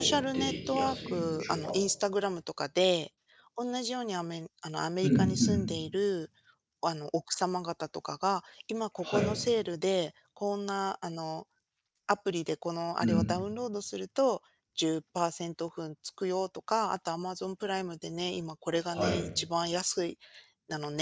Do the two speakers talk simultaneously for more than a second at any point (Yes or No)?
Yes